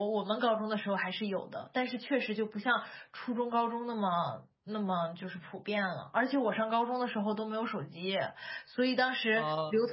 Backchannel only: Yes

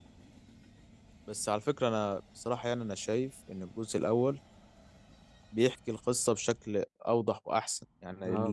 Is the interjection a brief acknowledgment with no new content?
No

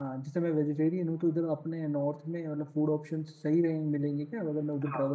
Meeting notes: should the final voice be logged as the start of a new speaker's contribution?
Yes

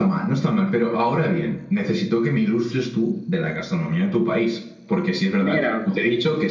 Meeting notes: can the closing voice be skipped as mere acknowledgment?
Yes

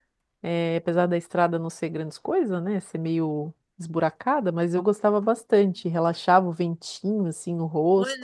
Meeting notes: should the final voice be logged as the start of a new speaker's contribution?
Yes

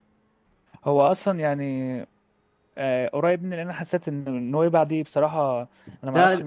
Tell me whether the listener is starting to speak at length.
No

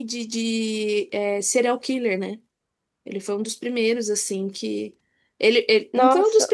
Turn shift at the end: No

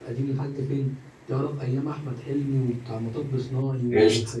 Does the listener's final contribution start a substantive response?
Yes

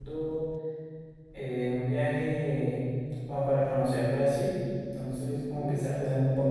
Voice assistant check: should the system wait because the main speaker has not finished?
Yes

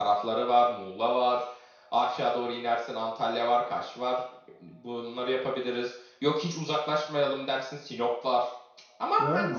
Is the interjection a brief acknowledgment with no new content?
No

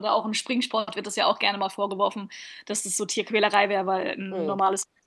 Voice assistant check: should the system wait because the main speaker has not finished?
Yes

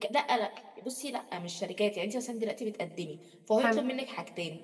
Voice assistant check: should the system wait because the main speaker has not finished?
Yes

